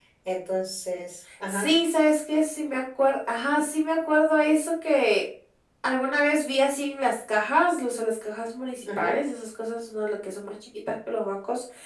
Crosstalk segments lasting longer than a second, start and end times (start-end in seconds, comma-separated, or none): none